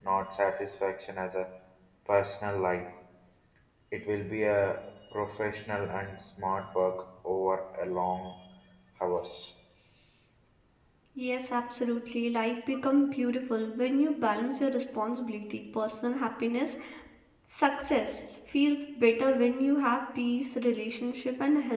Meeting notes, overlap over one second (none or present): none